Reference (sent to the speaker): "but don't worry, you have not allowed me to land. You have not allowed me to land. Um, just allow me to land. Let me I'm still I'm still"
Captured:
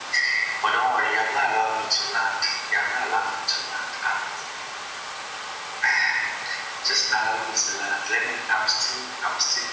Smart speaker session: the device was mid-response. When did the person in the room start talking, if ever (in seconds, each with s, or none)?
none